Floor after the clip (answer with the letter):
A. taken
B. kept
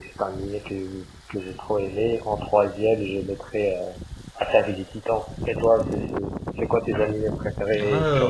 A